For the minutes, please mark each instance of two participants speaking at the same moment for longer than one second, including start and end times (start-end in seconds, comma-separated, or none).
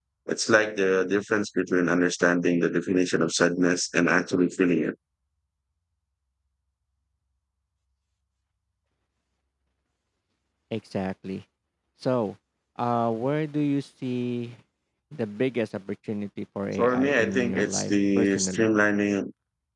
16.8-18.7